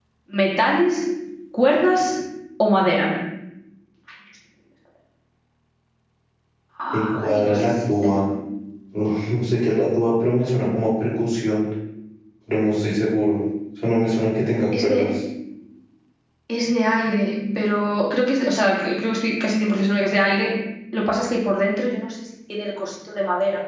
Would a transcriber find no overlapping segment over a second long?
No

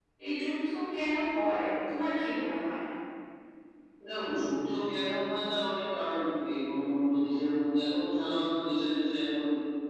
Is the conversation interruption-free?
Yes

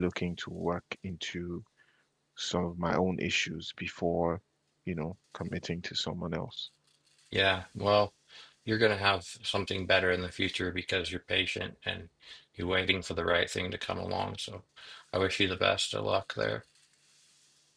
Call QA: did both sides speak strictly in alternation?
Yes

